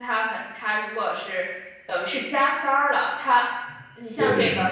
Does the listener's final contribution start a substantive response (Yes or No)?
No